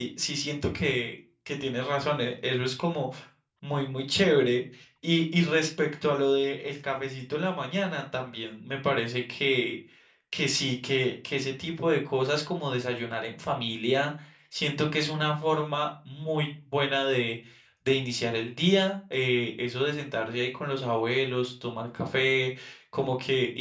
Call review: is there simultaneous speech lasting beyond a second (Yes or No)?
No